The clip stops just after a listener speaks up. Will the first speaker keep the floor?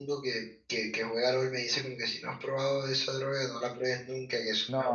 No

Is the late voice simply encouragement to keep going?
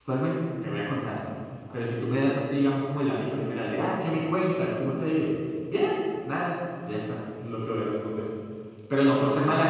Yes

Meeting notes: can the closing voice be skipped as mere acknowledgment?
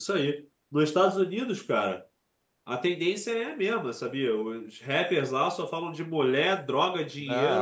No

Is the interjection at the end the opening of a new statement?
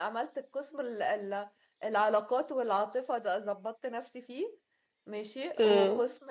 No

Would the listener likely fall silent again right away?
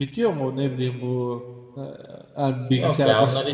No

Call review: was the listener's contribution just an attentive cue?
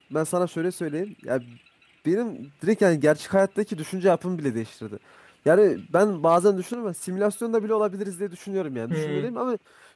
Yes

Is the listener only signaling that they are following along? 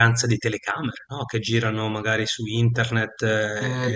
No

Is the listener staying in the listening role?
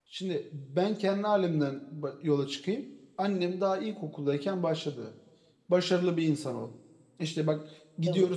Yes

